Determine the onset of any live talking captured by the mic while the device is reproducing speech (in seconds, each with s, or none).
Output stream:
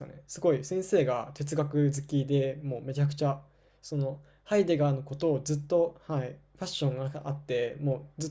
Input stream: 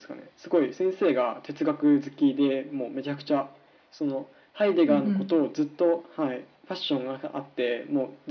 4.8 s